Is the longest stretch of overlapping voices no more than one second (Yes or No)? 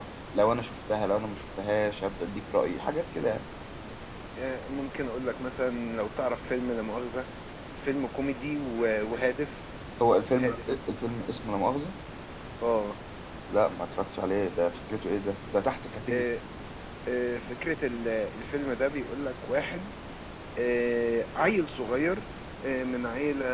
Yes